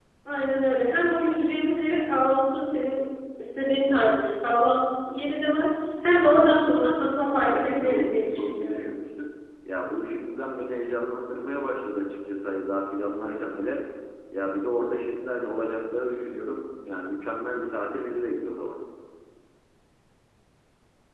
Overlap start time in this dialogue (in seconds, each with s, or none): 7.5 s